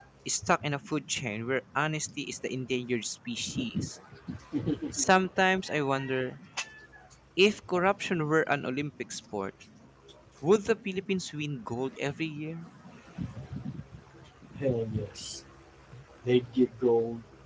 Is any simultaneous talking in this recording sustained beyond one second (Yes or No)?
No